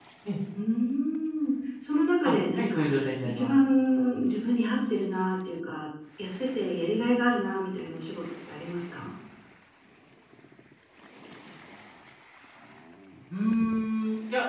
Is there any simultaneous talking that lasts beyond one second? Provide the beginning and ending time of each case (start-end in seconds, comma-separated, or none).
2.2-3.5